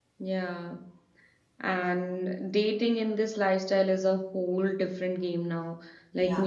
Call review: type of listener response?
listening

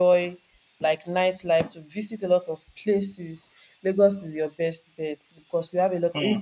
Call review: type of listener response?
listening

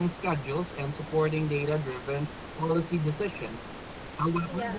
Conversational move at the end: listening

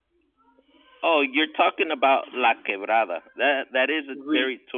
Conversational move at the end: listening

